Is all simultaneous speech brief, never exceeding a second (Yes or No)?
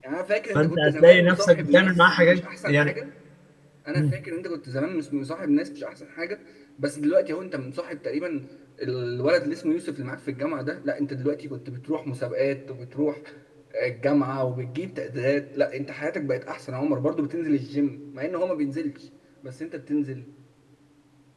No